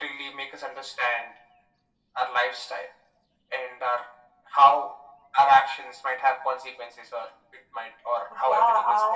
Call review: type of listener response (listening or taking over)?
taking over